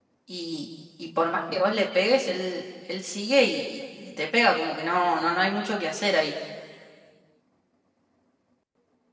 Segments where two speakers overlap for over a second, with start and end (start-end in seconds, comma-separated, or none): none